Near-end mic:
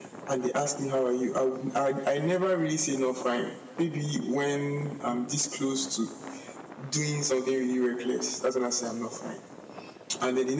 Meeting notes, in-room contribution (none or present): none